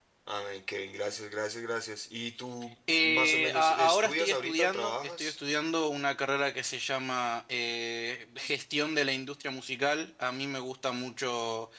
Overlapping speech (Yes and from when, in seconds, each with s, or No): Yes, from 2.9 s